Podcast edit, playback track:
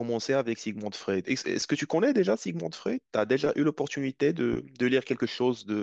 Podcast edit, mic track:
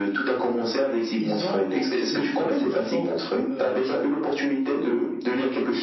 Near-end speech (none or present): present